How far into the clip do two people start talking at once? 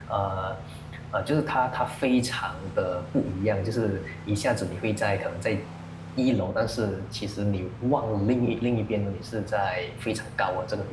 none

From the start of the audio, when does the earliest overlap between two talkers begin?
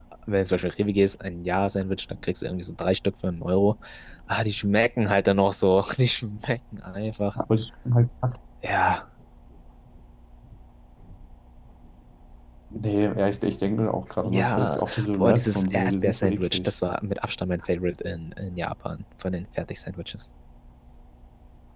14.2 s

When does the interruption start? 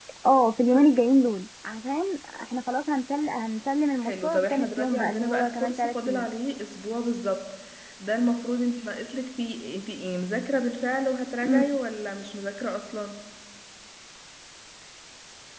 4.0 s

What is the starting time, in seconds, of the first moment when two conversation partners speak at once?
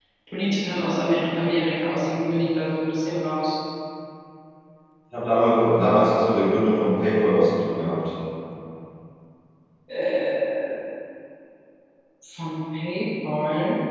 none

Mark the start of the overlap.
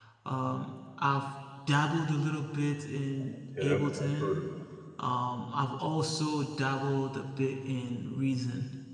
3.2 s

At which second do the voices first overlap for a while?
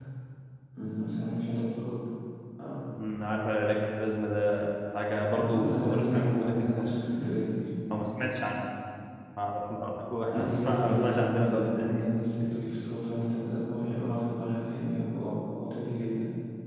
5.3 s

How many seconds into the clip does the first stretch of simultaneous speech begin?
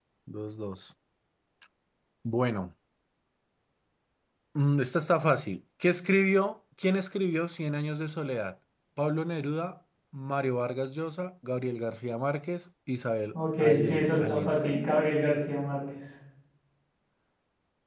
13.3 s

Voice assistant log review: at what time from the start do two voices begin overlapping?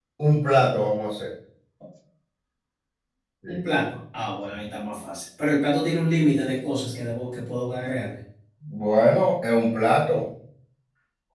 none

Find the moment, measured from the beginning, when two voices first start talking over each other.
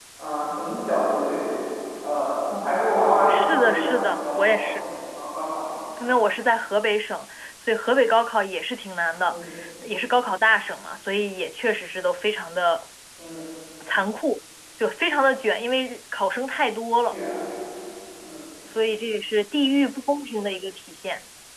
3.3 s

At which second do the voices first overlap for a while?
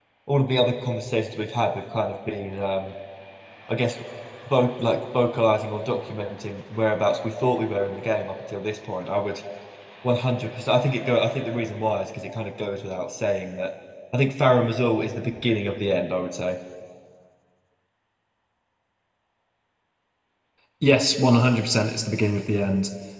none

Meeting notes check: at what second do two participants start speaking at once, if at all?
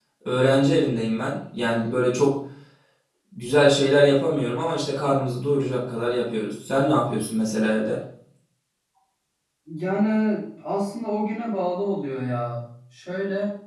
none

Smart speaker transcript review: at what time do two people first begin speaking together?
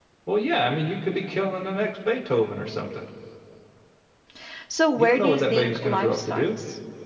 5.0 s

